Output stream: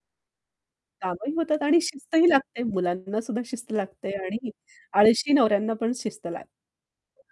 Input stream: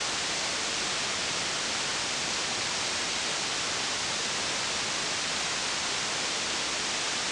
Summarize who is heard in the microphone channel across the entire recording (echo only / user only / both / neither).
neither